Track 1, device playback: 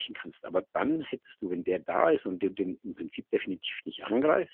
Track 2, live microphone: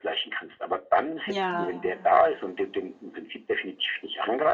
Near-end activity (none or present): present